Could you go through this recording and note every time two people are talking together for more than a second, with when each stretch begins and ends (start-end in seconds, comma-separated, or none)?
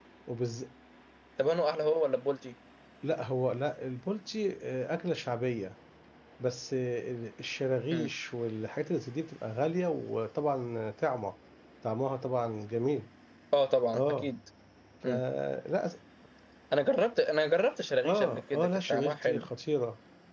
18.1-19.5